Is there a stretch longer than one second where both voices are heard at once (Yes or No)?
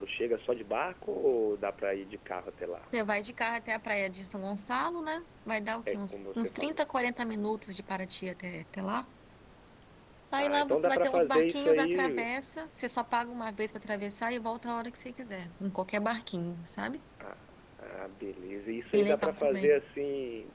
Yes